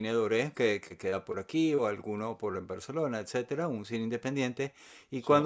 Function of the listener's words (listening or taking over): listening